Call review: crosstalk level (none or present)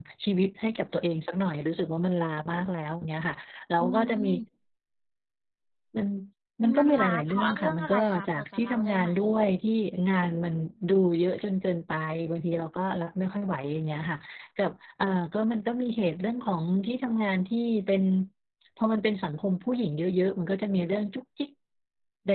present